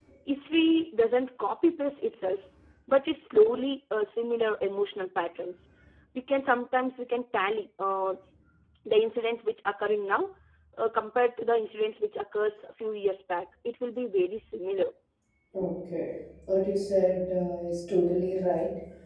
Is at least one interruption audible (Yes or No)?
No